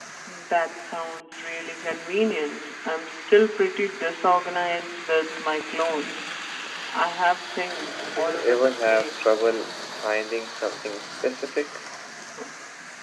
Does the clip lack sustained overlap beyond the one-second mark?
No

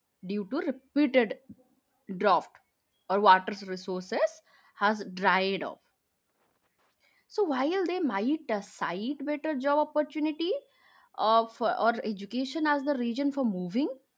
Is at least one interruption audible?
No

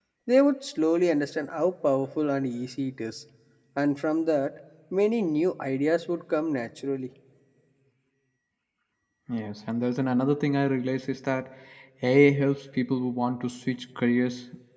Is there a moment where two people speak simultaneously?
No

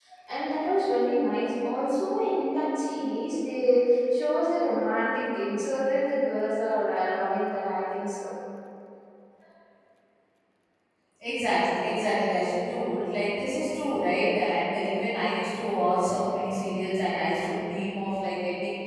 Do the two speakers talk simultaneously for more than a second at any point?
No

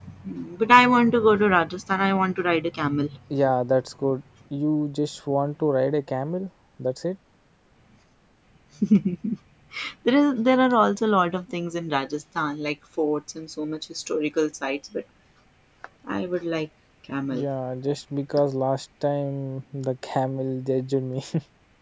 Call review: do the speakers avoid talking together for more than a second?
Yes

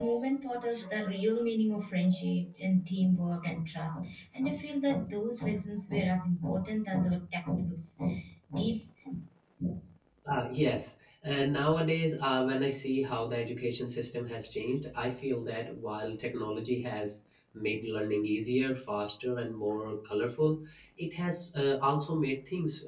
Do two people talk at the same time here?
No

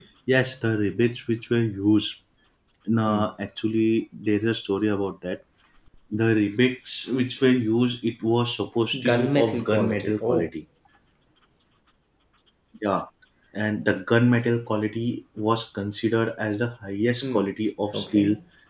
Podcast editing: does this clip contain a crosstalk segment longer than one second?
Yes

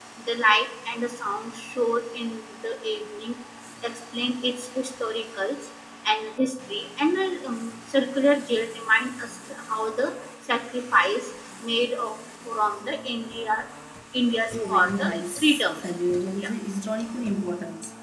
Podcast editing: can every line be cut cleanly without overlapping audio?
No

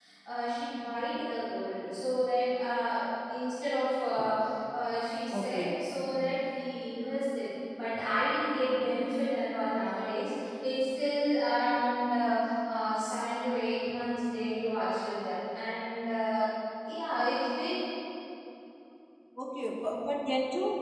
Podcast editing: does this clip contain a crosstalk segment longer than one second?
No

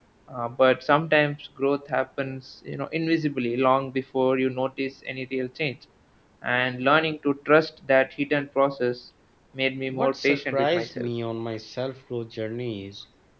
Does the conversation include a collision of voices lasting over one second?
Yes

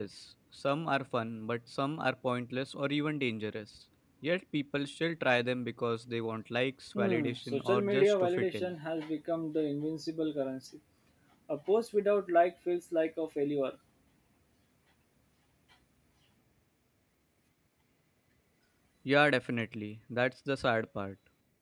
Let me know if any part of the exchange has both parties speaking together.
Yes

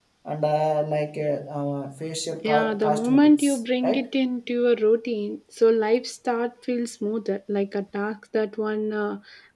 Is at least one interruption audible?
Yes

